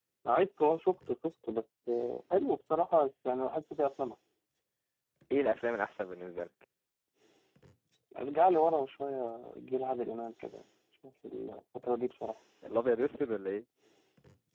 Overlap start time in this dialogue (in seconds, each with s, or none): none